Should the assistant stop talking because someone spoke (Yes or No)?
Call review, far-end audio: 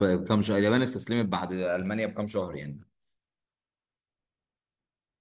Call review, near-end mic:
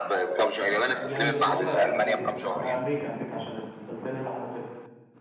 Yes